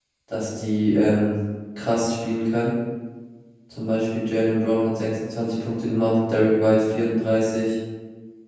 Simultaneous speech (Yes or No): No